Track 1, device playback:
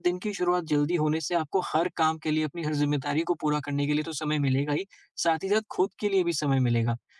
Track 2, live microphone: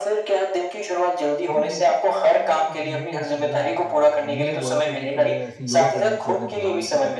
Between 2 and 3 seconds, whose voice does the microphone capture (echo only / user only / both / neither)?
both